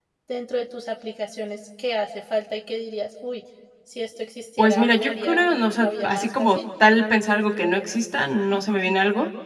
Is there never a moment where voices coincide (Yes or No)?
No